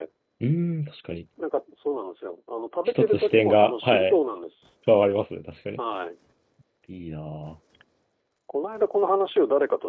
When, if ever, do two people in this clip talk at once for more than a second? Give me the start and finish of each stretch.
2.9-4.2

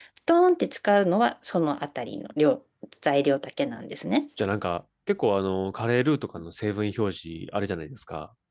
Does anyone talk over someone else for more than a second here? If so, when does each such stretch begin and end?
none

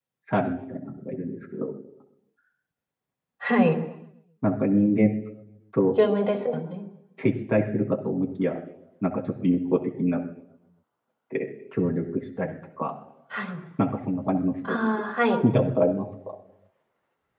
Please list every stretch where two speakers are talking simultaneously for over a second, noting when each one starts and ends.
none

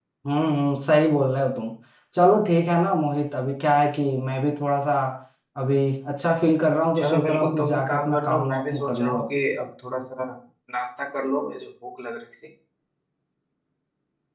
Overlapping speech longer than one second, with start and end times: 7.0-9.2

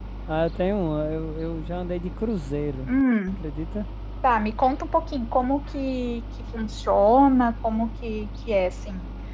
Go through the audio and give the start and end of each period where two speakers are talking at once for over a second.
none

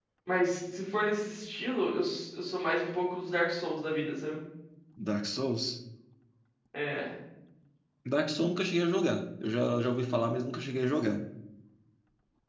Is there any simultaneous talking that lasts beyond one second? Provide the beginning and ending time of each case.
none

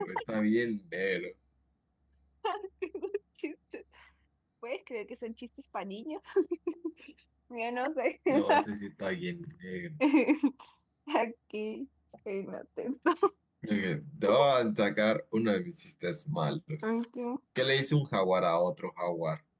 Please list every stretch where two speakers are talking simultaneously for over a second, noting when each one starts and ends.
none

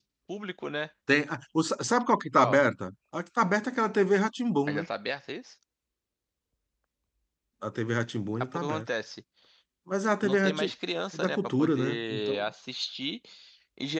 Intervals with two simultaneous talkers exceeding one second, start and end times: 11.1-12.4

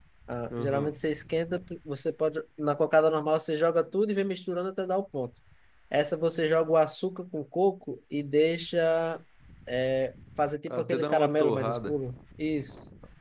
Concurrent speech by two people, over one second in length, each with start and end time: 10.7-12.0

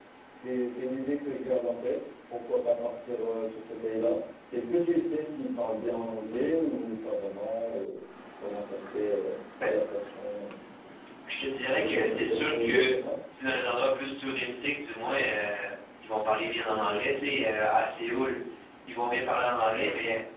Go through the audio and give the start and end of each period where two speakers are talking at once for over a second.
11.6-12.9

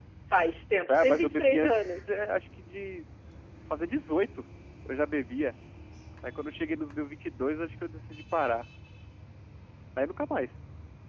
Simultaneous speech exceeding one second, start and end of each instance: 0.9-2.1

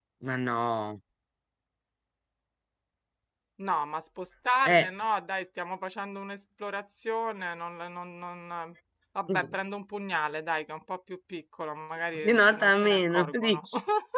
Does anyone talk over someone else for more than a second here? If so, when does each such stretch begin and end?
12.2-13.7

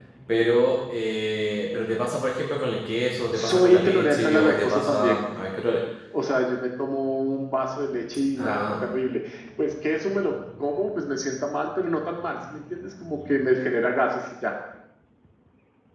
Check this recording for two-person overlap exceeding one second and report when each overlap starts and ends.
3.3-5.2

